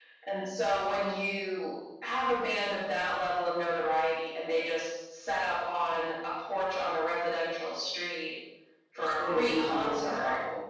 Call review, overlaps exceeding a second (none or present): present